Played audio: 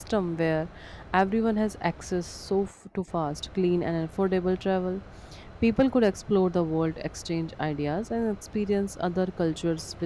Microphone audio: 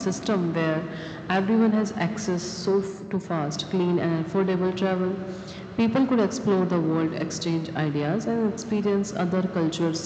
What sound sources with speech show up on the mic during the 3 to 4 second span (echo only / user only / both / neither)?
echo only